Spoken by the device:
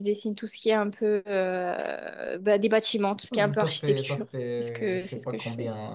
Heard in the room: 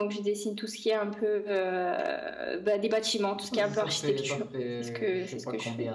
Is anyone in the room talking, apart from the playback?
No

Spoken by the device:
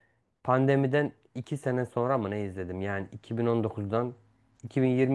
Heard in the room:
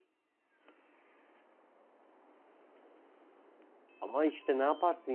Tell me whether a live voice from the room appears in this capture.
Yes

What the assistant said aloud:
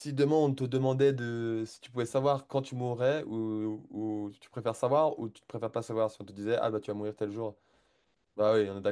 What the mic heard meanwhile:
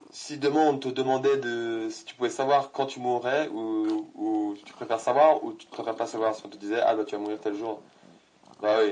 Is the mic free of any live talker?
Yes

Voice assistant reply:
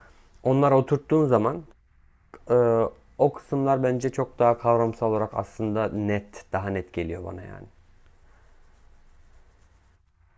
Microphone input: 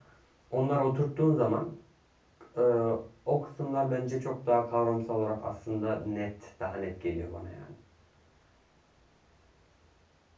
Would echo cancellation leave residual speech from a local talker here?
No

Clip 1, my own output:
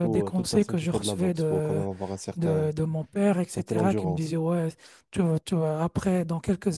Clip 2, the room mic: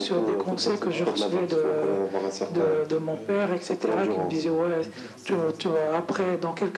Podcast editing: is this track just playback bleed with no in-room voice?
No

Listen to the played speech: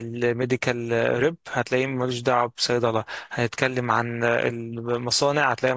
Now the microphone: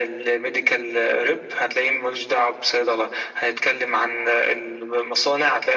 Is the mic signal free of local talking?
Yes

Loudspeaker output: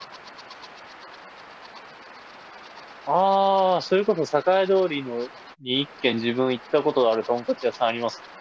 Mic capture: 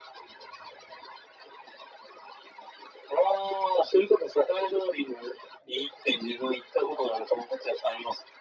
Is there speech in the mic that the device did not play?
No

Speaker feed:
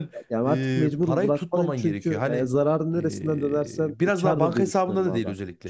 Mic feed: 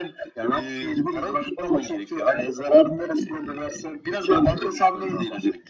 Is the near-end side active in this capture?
No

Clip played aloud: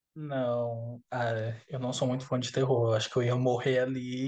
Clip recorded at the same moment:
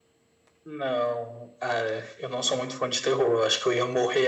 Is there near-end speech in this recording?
No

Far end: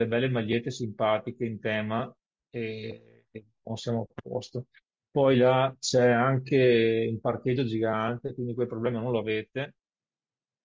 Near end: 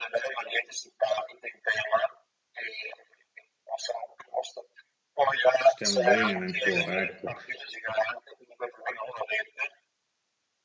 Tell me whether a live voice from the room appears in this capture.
Yes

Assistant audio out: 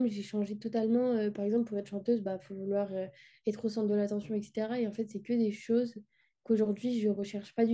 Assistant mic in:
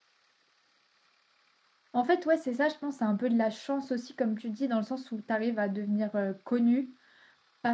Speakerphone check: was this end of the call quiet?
No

